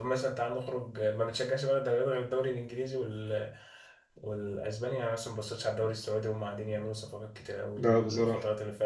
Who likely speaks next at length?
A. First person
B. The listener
A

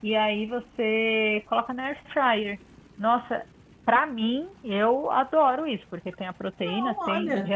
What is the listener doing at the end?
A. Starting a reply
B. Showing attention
B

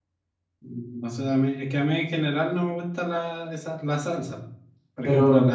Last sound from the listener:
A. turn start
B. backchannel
B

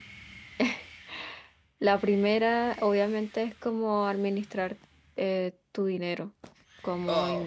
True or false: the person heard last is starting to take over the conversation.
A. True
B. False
B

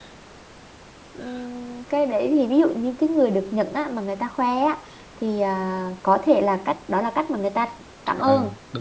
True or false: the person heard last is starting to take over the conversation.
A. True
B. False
A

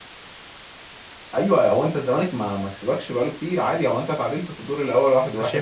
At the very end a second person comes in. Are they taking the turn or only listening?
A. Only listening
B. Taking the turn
B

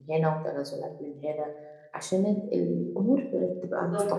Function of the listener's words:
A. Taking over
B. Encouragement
A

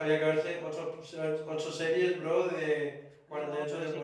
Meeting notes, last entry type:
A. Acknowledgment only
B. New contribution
B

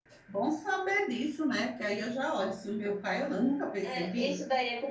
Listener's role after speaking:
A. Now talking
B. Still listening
A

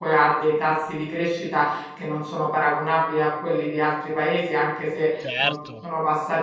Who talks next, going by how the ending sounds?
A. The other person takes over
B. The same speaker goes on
B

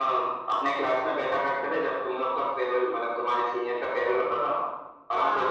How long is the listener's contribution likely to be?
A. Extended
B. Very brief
B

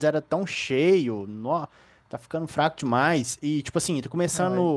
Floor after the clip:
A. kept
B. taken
A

